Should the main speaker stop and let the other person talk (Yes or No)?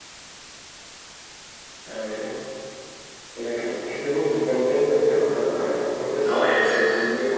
Yes